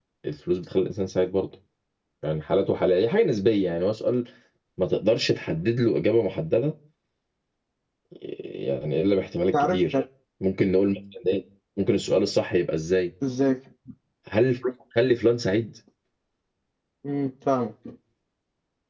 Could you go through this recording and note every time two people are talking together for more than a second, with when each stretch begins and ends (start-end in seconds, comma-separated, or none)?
none